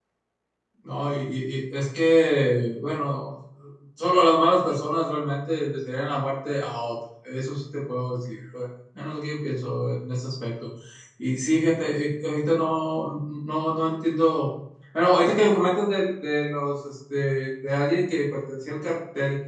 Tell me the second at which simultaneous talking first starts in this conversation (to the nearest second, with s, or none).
none